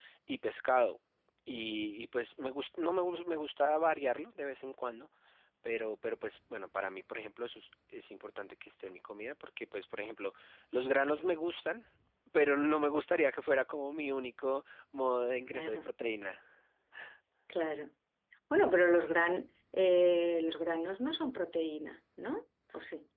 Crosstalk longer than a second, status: none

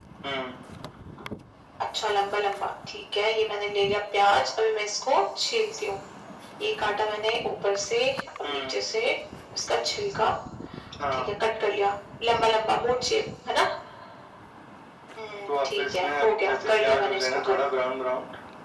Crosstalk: present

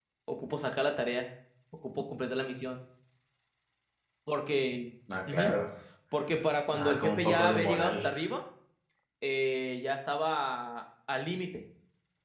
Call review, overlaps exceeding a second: present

